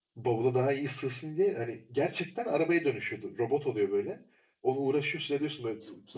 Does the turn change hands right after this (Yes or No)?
No